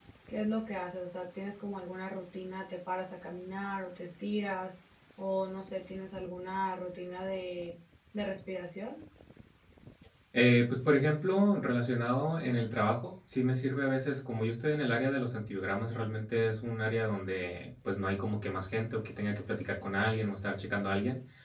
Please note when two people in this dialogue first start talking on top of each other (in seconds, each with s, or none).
none